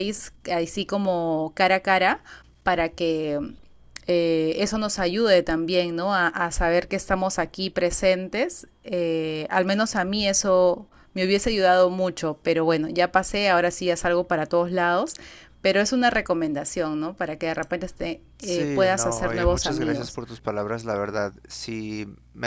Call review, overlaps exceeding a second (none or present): present